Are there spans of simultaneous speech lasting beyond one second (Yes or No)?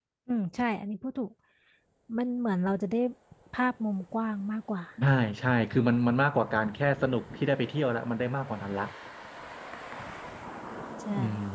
No